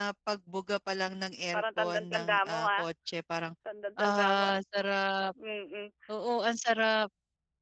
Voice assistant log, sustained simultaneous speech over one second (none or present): present